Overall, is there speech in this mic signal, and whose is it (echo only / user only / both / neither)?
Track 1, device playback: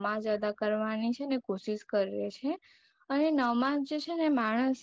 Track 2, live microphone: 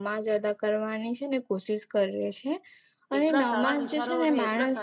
both